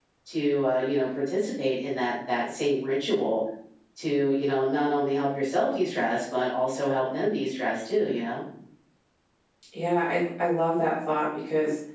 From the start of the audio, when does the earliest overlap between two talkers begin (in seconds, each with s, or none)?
none